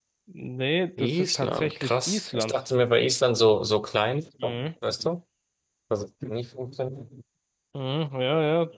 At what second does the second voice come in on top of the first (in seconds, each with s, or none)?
1.0 s